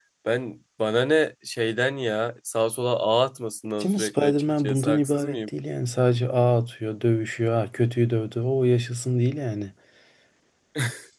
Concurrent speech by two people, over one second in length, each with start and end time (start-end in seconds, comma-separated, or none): 3.8-5.5